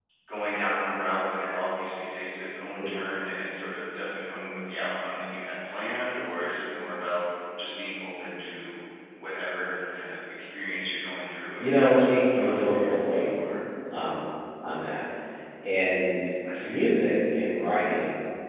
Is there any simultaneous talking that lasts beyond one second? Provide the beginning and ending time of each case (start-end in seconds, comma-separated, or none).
11.6-13.5